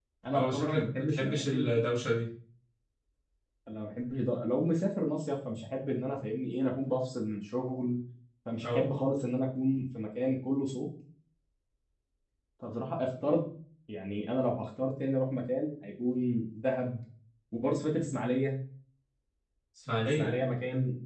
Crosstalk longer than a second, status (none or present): present